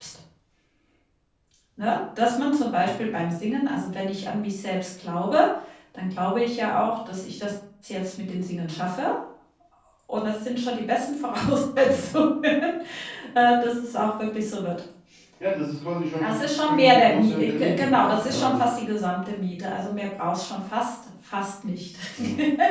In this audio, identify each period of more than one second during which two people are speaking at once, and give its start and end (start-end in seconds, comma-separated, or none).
16.2-18.6